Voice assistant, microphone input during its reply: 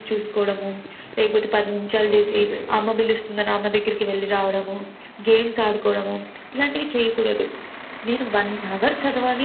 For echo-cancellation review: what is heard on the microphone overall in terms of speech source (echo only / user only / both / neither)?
both